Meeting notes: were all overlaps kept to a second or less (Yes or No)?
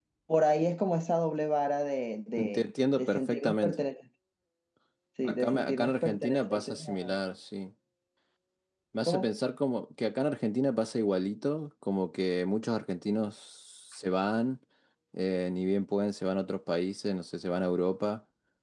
No